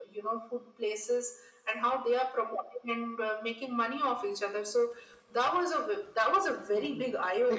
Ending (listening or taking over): taking over